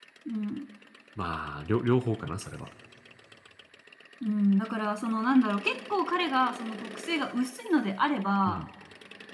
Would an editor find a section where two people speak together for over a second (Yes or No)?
No